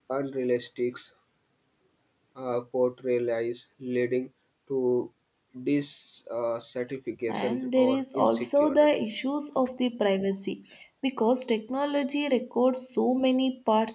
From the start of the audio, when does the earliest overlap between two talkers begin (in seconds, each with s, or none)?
7.3 s